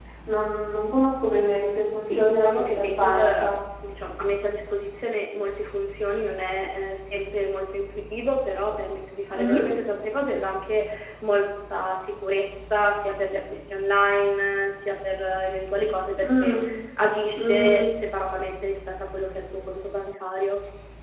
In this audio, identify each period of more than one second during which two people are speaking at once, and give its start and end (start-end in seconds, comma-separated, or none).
2.0-3.5